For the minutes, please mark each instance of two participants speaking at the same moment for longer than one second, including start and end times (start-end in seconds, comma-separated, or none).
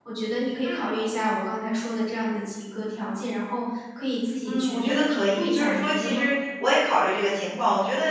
4.4-6.3